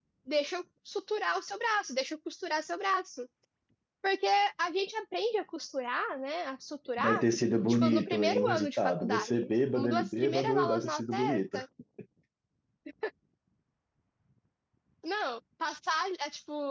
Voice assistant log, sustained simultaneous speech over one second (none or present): present